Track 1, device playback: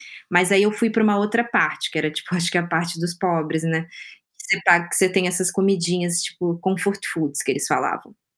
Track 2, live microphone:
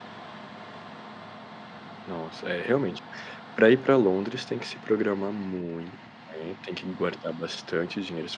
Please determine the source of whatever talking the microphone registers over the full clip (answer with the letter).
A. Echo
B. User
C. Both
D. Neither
B